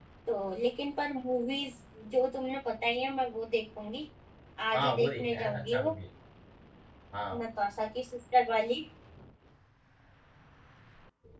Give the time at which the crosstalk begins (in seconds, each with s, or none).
4.7 s